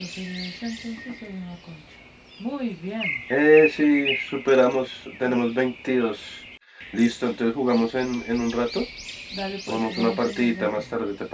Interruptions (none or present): present